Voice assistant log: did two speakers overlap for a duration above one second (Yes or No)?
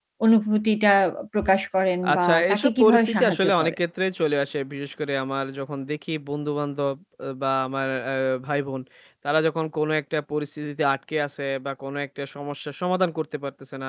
Yes